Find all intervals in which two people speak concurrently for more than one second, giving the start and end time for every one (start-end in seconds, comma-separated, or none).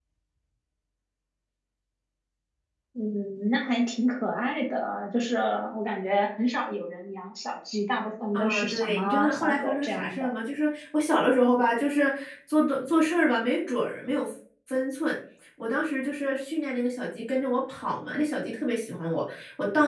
8.3-10.3